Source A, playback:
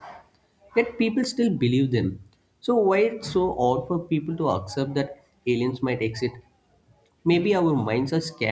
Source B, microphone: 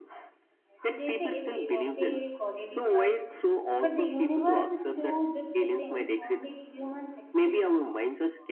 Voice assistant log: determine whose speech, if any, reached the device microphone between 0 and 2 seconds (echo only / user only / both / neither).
both